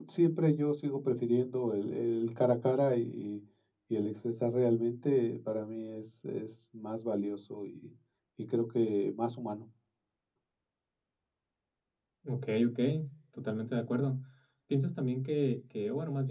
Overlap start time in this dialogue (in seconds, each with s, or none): none